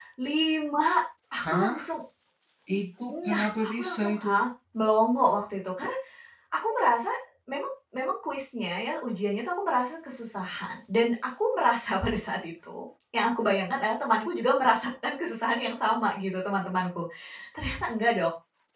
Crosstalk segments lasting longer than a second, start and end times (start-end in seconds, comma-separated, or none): 3.1-4.3